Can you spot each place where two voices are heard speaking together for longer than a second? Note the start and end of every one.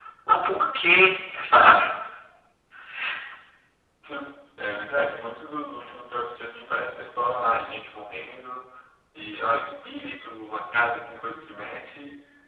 none

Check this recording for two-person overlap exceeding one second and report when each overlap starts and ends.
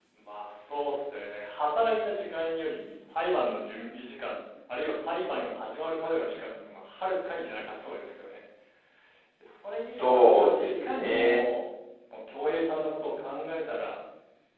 9.9-11.4

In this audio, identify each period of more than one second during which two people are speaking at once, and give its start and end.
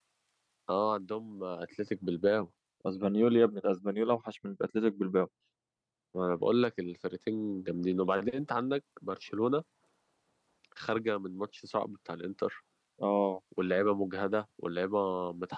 none

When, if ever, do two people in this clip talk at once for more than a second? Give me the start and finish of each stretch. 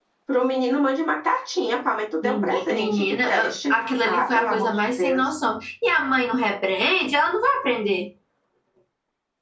2.2-5.3

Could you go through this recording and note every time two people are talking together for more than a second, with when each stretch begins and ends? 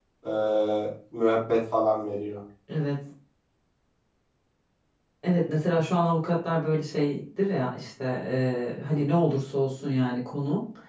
none

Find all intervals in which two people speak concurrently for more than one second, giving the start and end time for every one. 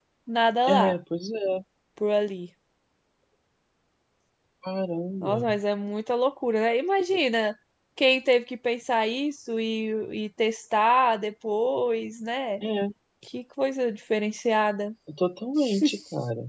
none

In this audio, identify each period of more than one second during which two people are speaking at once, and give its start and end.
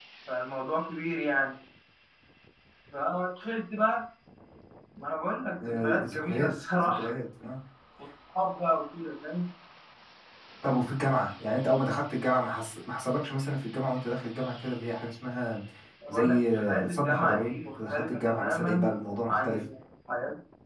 5.6-7.1, 16.1-18.9

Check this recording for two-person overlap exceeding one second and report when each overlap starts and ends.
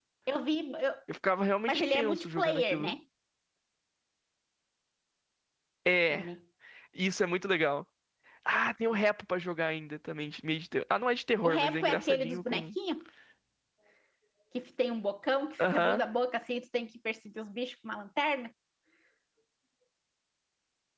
1.7-2.9, 11.4-12.6

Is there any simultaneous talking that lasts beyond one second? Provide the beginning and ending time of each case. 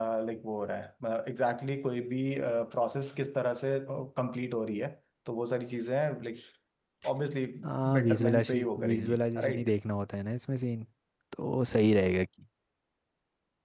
8.0-9.7

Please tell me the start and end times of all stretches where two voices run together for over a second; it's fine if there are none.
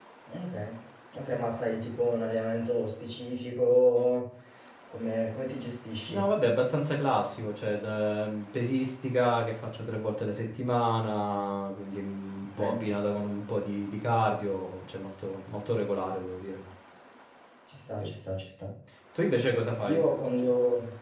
none

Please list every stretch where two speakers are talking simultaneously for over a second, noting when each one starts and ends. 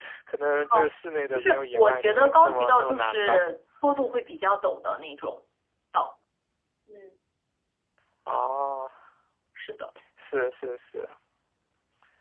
1.4-3.5

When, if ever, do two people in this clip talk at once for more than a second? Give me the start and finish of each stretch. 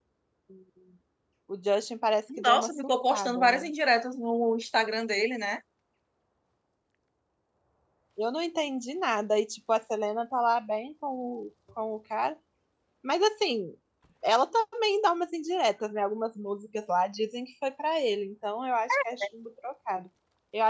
2.4-3.7

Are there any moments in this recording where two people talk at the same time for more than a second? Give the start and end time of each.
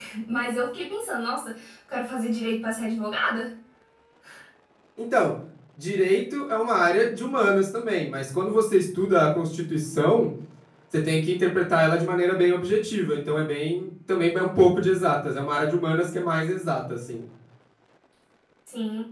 none

